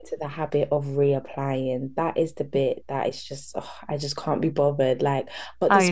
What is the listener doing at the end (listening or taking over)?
listening